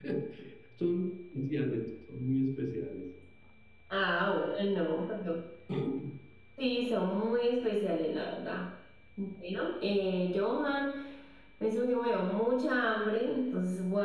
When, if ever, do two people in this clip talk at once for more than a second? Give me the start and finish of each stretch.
none

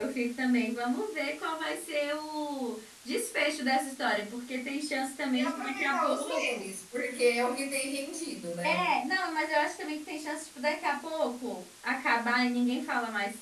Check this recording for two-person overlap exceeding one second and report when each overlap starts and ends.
5.3-6.7

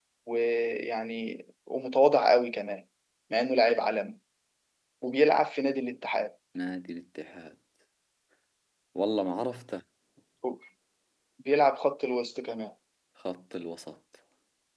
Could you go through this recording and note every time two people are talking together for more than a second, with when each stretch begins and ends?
none

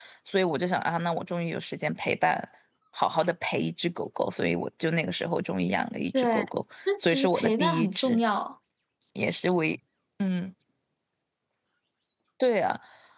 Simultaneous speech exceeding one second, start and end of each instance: 7.0-8.2

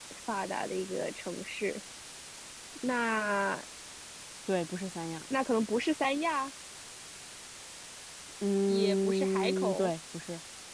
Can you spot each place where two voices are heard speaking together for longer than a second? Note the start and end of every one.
8.7-9.9

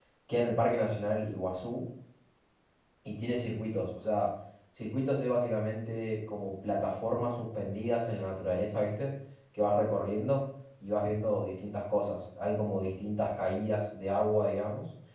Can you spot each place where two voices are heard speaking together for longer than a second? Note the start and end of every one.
none

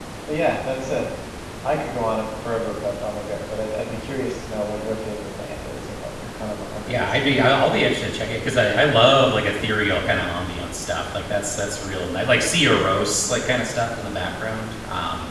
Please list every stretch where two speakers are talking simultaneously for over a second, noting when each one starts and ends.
none

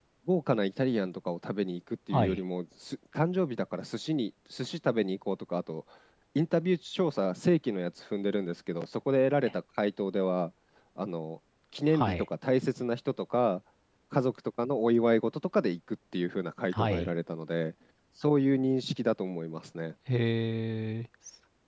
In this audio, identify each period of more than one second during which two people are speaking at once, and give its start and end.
none

